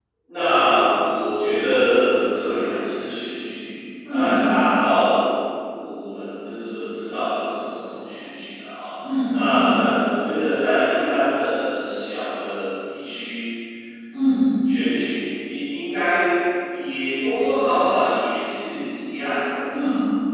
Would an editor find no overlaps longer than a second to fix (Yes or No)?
Yes